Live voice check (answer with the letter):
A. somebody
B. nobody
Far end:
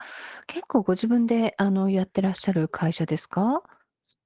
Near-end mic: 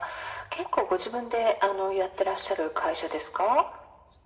B